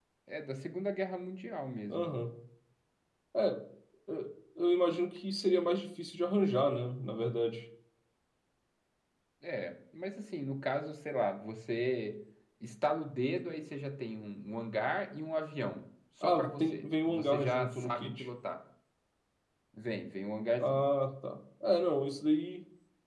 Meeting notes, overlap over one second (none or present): present